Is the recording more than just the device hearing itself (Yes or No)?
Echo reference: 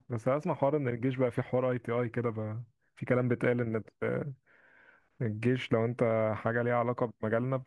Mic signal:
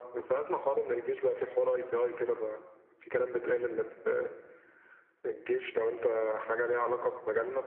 No